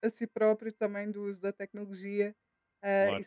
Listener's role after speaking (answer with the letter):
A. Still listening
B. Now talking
A